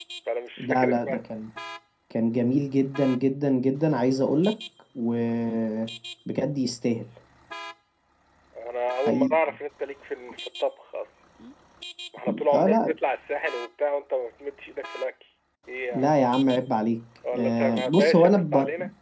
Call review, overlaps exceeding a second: present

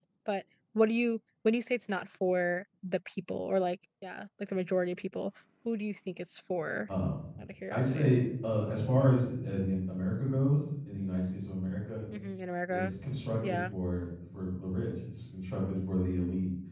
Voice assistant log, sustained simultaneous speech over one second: none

